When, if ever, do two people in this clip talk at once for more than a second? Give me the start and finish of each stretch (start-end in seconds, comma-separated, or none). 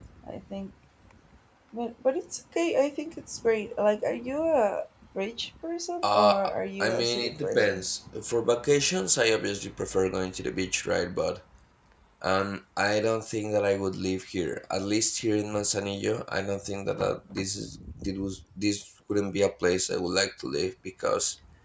6.0-7.8